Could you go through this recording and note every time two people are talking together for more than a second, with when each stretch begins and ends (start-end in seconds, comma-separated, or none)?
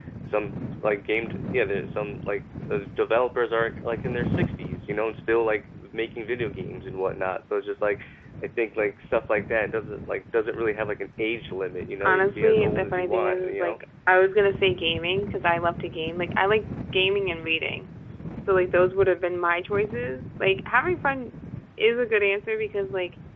12.0-13.8